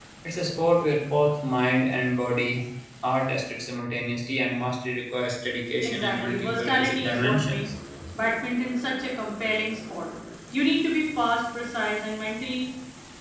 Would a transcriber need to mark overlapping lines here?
Yes, from 5.8 s

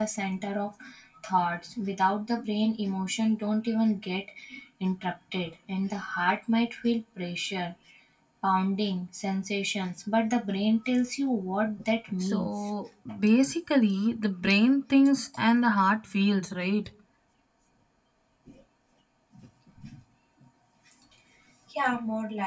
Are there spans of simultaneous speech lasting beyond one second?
No

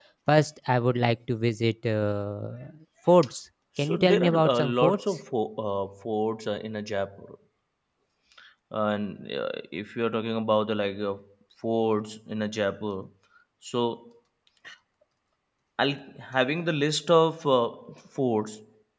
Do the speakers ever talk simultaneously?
Yes, from 3.8 s

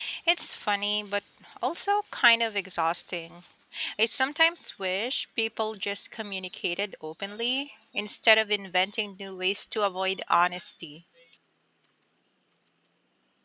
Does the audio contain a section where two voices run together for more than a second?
No

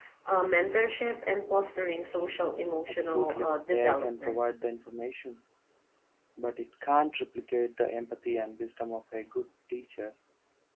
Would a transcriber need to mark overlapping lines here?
Yes, from 2.9 s

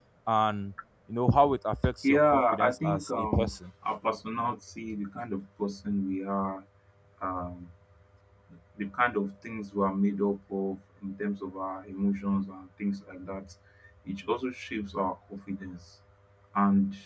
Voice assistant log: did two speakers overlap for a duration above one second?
Yes, from 2.0 s

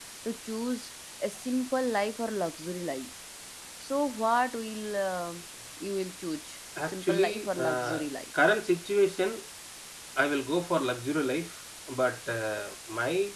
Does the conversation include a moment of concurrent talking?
Yes, from 6.8 s

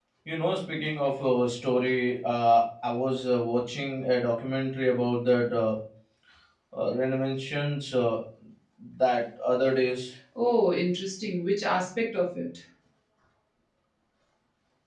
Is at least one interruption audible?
No

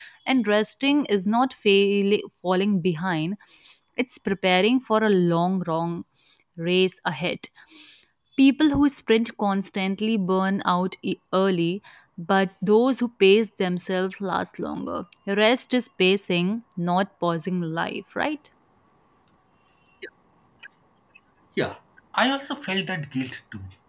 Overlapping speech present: No

